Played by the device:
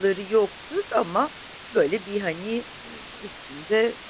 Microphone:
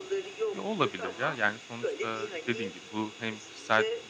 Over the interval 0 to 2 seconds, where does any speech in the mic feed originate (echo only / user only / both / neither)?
both